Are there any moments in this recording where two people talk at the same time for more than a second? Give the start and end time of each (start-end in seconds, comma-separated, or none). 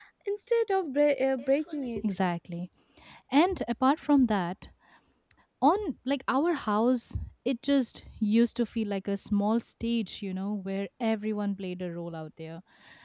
none